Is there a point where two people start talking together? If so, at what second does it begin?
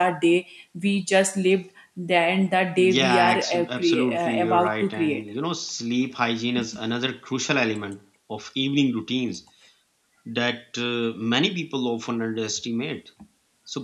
2.8 s

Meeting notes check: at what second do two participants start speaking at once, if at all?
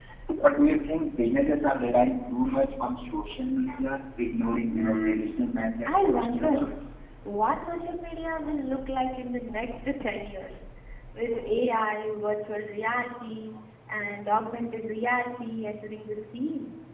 4.7 s

